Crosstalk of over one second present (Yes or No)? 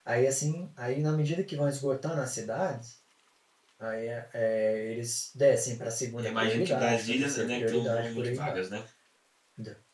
Yes